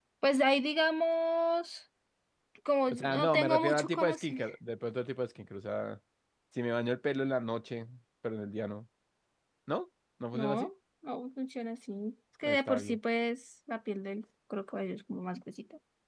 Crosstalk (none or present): present